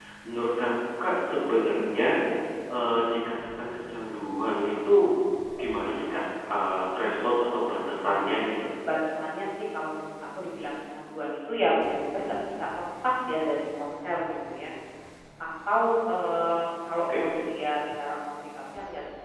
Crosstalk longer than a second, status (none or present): none